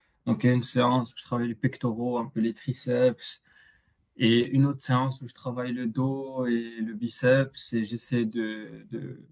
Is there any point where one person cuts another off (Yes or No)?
No